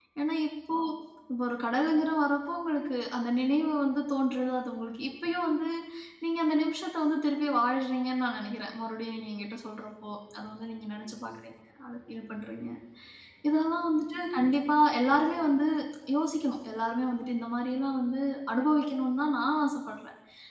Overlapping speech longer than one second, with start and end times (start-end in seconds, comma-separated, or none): none